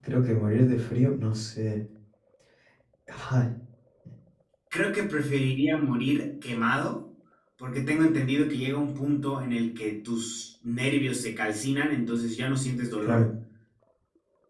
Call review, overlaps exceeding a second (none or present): none